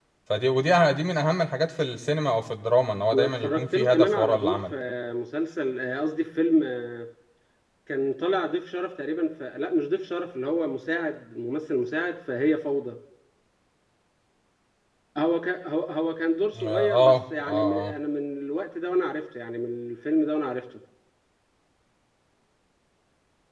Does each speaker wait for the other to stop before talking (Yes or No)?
No